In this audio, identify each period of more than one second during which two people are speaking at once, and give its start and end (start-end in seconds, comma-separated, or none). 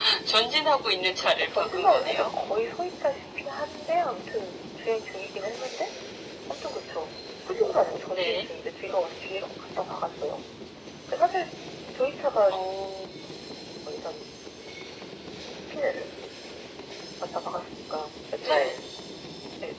1.2-2.5